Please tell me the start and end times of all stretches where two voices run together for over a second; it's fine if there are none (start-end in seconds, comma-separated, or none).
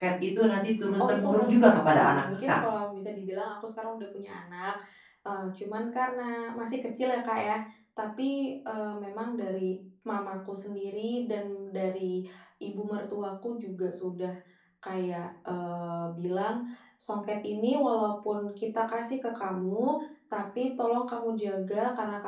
1.0-2.6